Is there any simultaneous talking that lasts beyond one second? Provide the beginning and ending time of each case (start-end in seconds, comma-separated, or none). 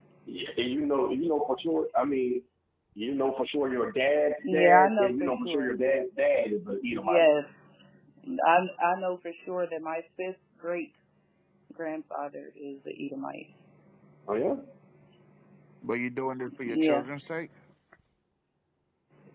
4.4-5.7